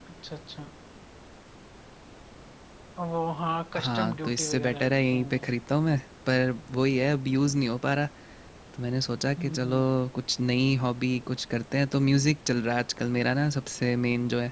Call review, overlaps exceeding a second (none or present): present